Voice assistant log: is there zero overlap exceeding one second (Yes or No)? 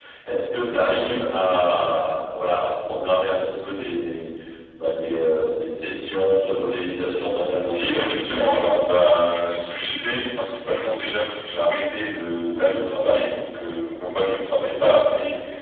No